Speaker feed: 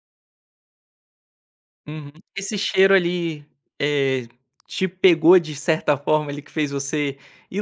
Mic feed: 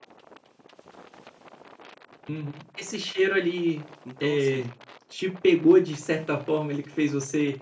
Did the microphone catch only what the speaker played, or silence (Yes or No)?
No